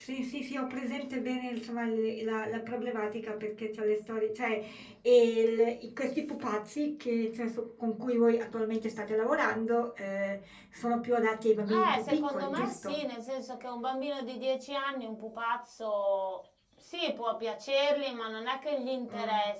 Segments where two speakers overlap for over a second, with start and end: 11.7-13.0

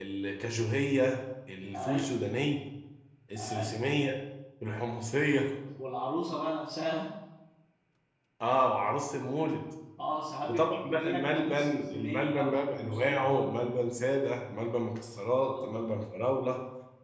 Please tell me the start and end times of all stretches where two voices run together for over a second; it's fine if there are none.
10.5-13.3

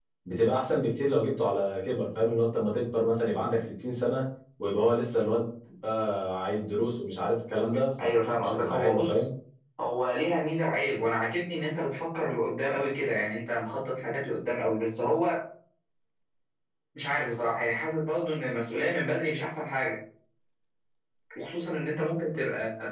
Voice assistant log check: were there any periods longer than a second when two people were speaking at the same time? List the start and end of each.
8.0-9.3

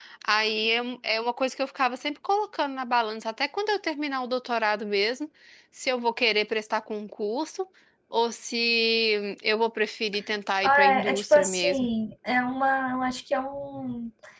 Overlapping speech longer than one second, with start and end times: 10.6-11.9

